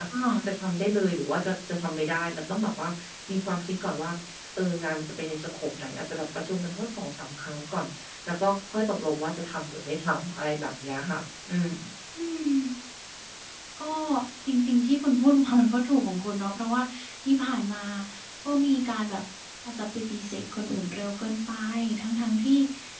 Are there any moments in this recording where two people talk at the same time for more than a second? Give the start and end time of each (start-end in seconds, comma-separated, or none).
none